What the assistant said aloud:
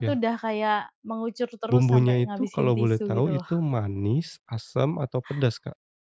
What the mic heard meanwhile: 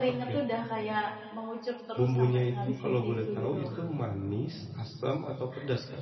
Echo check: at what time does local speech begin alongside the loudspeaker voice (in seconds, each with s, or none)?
none